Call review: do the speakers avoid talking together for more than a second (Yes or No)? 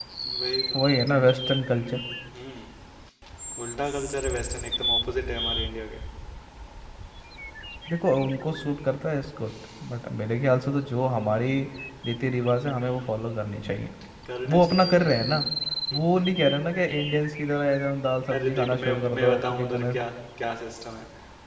No